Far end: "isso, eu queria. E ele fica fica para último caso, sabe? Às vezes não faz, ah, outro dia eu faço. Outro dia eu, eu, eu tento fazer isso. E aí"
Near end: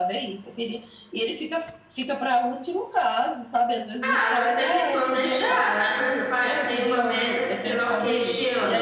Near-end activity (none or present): present